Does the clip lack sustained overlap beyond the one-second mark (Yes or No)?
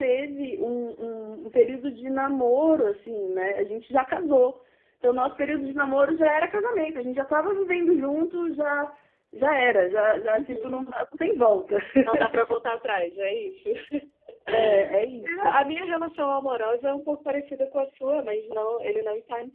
Yes